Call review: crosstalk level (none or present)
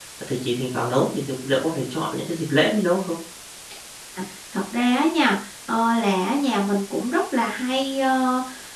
none